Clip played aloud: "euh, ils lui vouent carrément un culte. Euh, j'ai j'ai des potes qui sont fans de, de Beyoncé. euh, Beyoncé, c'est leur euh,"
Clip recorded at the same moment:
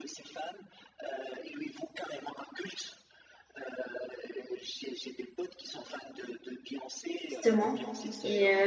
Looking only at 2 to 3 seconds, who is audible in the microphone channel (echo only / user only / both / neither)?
echo only